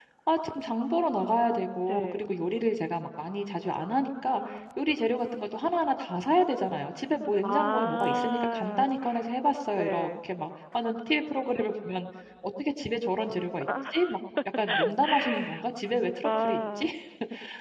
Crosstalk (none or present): present